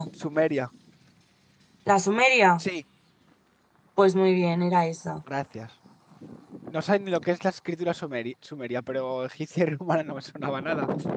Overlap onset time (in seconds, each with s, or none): none